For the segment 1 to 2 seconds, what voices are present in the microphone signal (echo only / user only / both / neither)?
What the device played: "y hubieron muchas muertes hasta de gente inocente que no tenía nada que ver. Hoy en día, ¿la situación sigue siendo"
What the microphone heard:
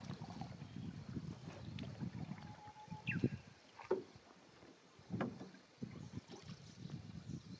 neither